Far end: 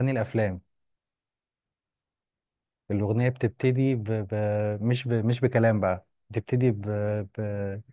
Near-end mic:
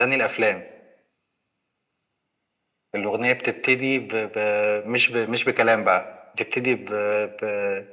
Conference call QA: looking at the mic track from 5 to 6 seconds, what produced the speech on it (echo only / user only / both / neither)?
echo only